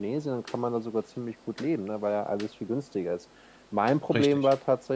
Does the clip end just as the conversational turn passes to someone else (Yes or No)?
No